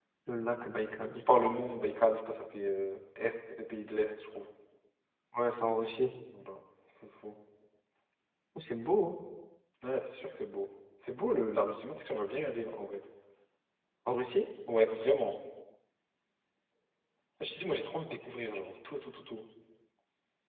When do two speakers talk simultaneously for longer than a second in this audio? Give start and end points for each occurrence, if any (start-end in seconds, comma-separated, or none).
none